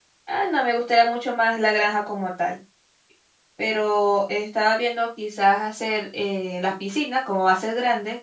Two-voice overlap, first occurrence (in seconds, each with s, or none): none